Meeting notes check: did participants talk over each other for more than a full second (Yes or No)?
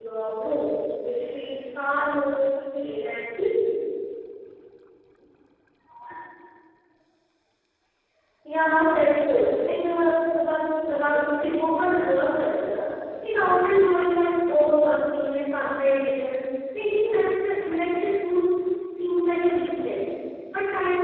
No